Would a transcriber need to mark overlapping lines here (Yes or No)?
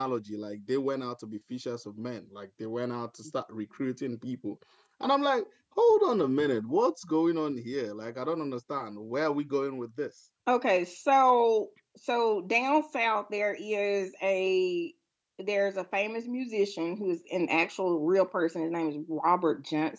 No